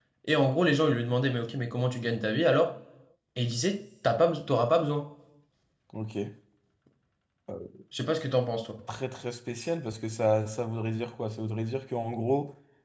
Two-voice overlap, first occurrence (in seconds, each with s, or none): none